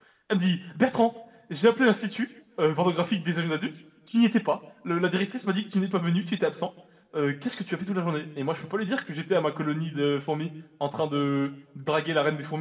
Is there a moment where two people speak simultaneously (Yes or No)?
No